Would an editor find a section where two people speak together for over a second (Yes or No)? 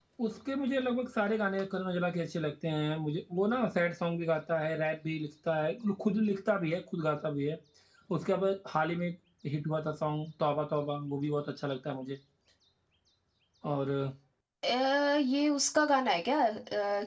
No